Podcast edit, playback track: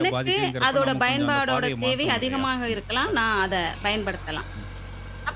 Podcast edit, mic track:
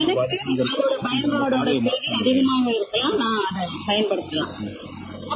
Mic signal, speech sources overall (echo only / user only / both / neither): both